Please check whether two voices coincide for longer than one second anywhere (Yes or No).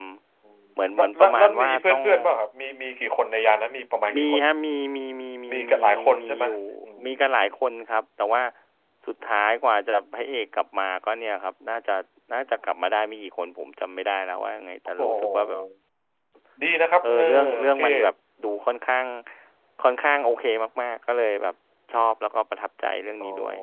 Yes